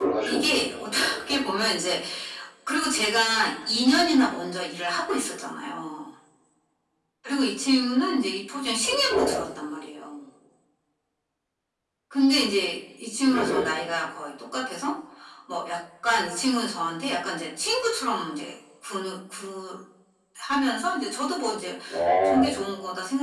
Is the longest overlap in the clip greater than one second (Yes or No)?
Yes